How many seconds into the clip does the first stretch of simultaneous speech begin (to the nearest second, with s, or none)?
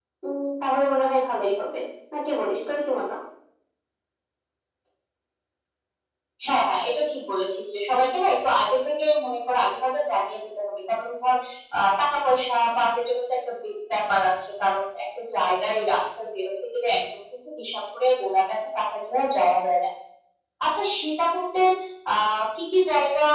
none